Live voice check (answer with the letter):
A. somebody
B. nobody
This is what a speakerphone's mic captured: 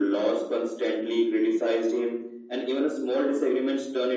B